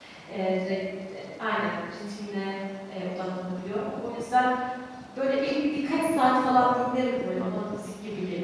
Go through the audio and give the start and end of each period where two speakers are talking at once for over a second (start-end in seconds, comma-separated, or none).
6.6-7.8